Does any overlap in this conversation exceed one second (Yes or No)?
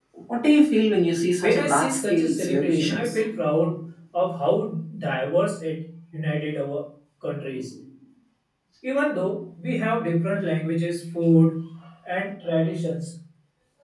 Yes